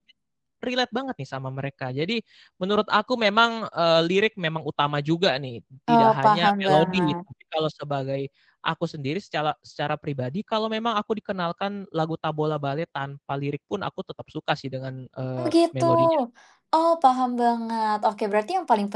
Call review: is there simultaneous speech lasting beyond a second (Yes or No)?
Yes